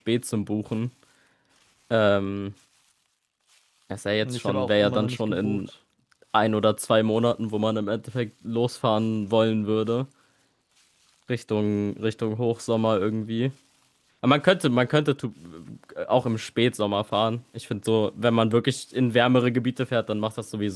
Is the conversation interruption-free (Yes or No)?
No